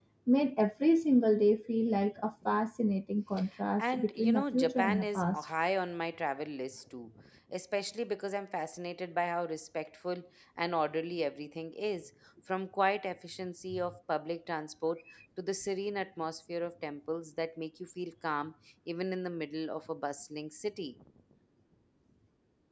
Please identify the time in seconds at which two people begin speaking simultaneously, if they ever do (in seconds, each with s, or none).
3.8 s